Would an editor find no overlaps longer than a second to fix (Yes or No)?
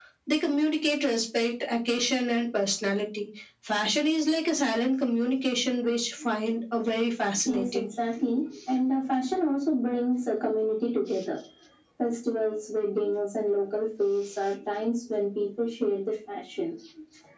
Yes